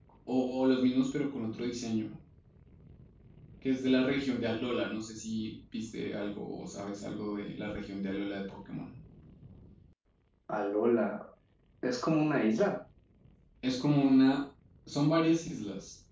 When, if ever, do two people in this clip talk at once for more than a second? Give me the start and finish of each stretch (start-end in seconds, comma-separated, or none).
none